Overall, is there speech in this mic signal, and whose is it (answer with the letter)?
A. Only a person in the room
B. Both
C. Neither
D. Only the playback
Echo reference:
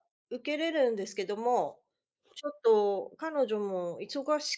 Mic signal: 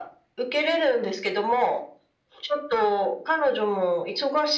D